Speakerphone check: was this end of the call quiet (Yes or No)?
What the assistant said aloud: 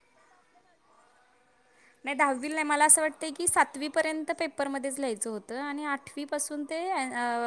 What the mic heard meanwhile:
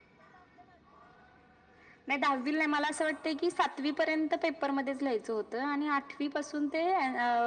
Yes